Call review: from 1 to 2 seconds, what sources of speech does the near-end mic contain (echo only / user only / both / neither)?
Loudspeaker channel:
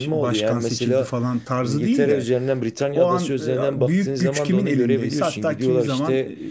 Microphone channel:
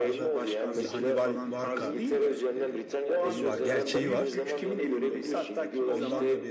both